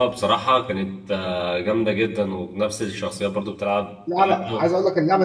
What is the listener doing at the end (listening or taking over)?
taking over